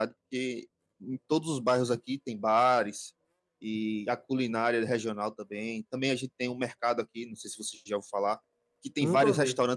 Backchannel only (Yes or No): Yes